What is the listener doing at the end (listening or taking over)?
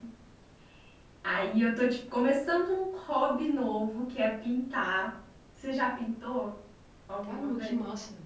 taking over